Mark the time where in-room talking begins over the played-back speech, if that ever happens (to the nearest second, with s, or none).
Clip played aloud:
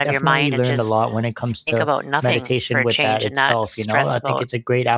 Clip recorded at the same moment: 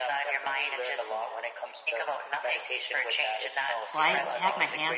4 s